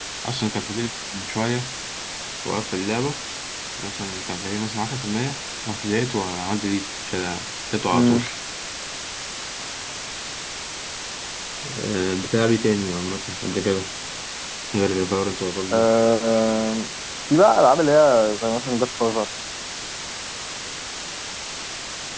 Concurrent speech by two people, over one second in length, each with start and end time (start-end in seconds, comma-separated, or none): none